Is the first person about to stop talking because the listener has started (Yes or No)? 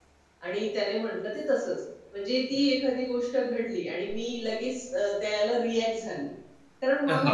No